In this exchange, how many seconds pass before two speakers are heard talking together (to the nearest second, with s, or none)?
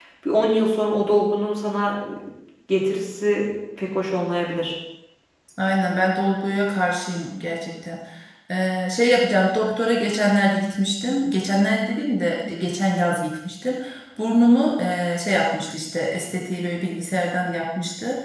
none